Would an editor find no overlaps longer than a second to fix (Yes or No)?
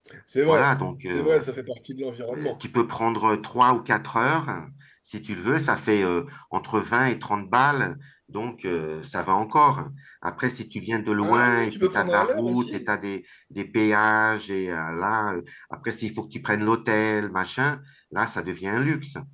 No